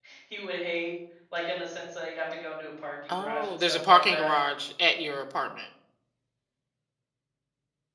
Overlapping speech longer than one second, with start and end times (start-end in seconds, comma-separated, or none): 3.1-4.3